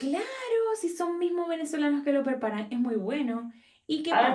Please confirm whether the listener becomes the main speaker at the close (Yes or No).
Yes